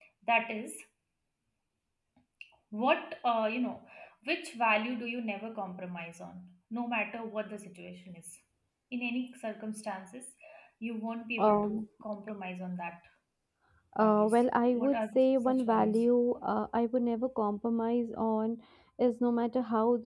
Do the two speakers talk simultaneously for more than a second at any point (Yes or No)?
Yes